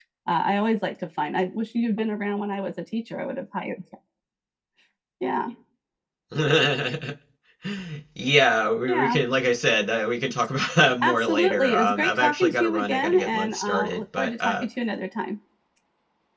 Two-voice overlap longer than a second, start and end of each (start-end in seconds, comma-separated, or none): 11.0-14.6